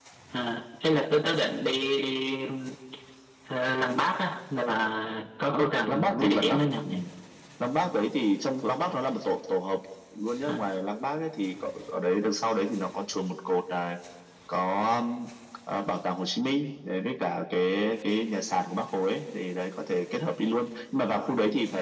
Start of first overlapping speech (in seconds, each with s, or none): 5.5 s